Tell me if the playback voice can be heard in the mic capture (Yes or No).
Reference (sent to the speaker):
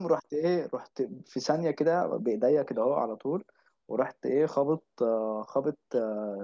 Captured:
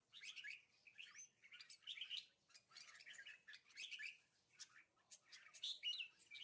No